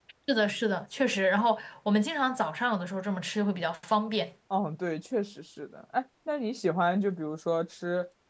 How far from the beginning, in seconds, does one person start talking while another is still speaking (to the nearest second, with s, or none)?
none